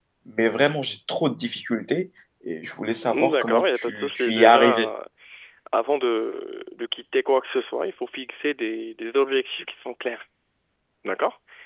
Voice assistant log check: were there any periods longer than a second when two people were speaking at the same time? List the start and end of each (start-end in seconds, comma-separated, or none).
3.1-4.9